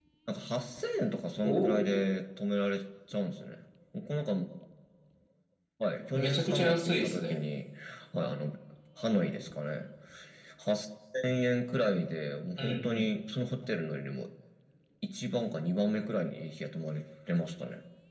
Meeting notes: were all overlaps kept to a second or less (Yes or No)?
No